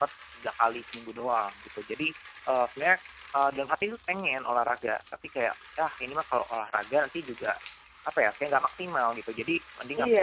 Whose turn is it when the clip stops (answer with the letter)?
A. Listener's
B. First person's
A